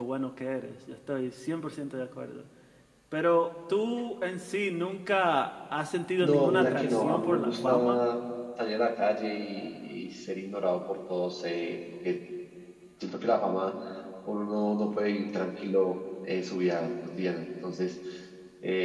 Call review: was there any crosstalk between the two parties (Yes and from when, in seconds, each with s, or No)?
Yes, from 6.2 s